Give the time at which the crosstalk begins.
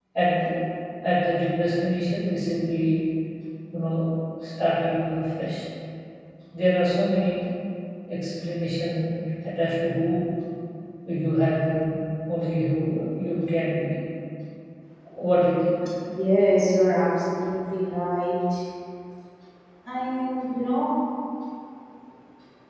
none

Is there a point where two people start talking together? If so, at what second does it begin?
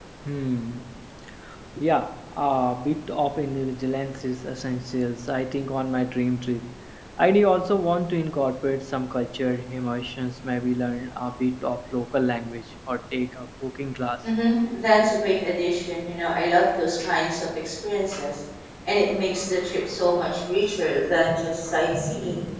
none

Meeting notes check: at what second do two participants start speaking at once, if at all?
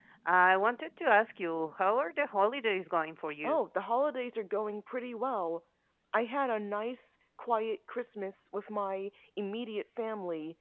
none

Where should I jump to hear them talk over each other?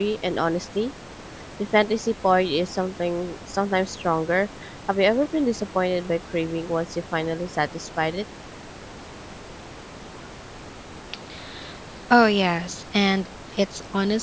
none

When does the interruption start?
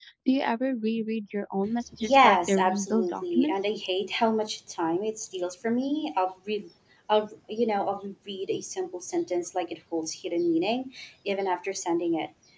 2.0 s

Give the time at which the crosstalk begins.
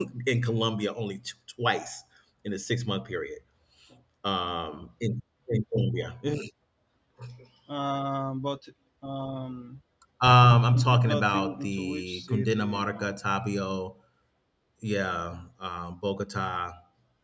10.7 s

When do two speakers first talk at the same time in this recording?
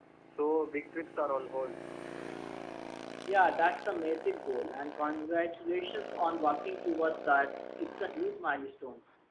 none

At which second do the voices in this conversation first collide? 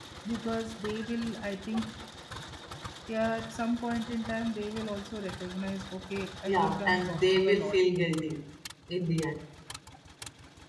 6.5 s

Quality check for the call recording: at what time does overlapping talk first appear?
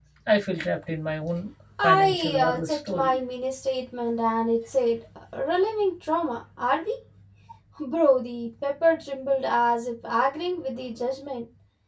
1.8 s

